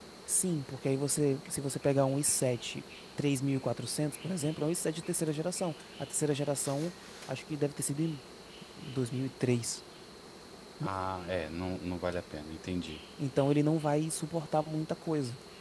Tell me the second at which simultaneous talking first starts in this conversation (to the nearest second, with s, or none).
none